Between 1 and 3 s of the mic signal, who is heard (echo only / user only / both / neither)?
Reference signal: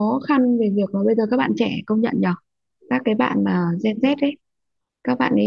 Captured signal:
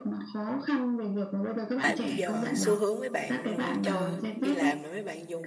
both